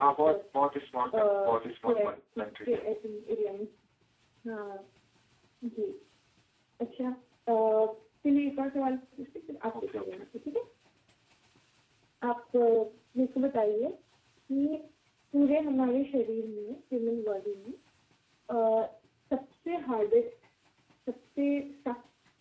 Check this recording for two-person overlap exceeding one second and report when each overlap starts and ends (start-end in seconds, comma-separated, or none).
1.1-2.8